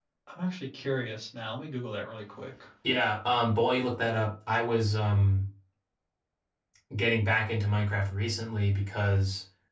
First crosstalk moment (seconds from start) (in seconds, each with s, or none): none